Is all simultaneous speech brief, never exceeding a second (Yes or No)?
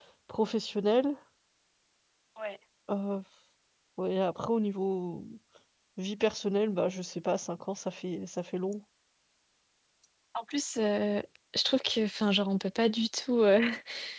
Yes